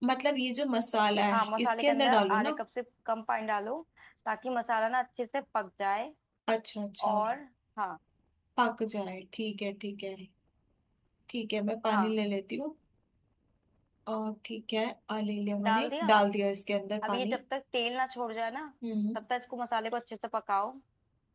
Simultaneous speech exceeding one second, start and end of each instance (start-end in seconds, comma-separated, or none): 1.3-2.5